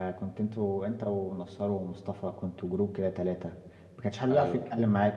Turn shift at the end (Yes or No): No